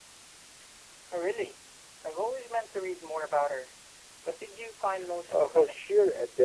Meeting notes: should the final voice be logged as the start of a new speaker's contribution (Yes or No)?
Yes